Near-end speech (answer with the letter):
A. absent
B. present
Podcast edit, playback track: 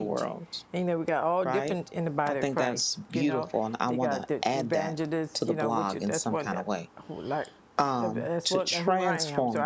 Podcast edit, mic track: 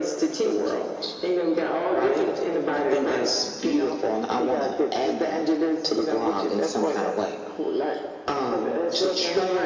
A